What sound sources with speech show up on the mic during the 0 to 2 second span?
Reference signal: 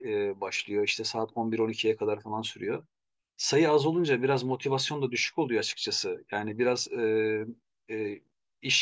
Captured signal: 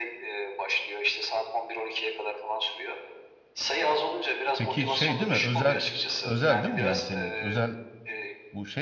echo only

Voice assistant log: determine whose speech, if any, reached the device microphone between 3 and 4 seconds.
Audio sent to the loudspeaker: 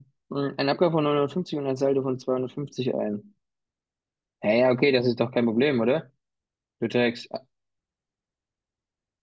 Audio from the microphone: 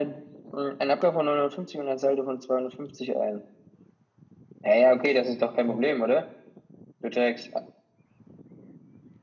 echo only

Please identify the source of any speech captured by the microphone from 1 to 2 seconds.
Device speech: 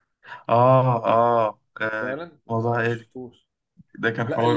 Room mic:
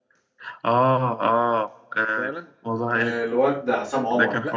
echo only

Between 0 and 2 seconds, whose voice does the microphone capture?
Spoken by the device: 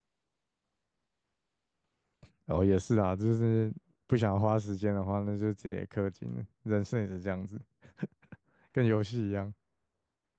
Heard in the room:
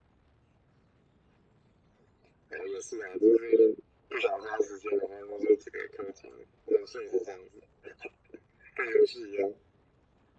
neither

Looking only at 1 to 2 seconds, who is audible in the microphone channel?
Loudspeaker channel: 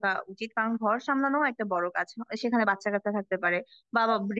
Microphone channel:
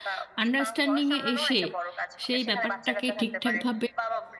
both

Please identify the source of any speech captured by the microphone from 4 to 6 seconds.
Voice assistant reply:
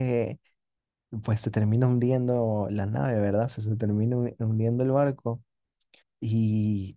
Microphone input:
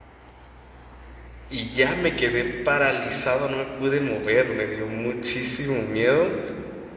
user only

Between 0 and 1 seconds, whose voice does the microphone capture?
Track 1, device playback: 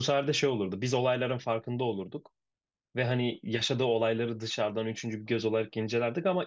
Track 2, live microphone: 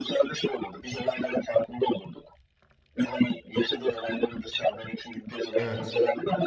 echo only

